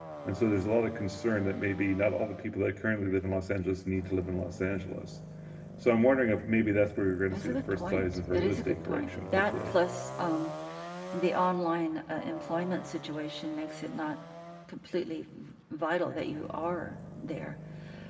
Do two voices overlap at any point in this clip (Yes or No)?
Yes